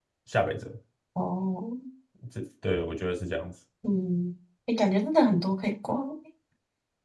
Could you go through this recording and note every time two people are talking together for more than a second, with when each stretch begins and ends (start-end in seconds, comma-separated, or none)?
none